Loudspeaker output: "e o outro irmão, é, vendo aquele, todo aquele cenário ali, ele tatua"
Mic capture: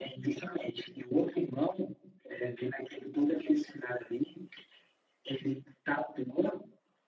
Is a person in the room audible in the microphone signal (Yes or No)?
No